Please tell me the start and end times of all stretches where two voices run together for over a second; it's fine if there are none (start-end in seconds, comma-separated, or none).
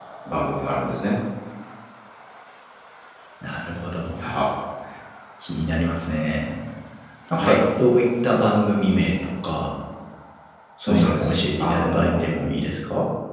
10.9-12.2